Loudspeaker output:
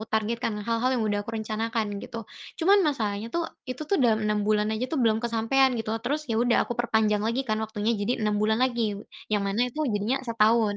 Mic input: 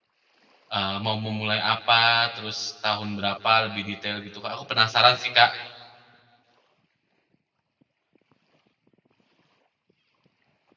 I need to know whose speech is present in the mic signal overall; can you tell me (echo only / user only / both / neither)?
user only